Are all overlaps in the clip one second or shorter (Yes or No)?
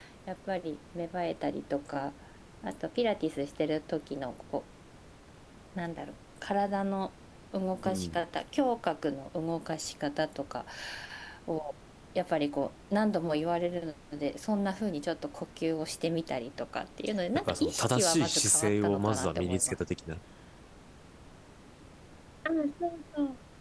No